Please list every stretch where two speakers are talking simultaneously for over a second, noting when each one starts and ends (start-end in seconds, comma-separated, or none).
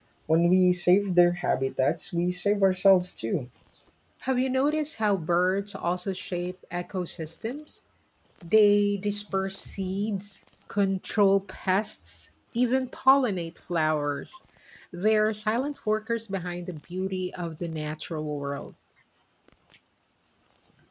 none